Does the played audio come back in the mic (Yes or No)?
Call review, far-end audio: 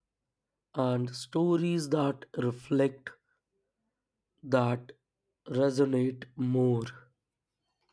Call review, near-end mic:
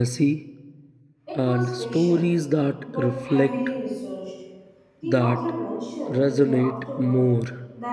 Yes